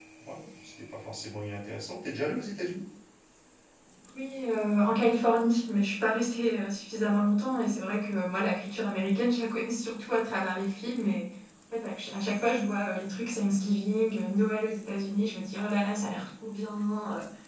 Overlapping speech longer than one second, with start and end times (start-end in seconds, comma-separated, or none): none